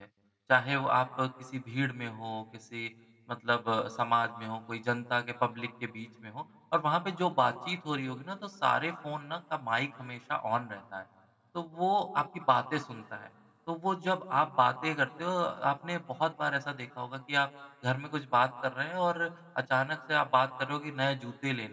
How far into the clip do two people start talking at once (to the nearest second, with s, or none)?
none